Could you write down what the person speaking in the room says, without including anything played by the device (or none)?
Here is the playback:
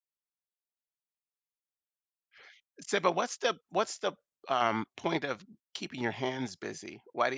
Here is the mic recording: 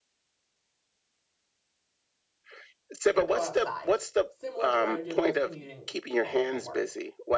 like go outside, similar to what I would do if I was commuting home from work.